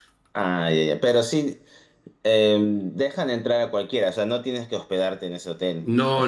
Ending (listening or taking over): taking over